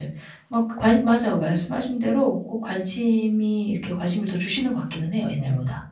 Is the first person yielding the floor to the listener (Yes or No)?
Yes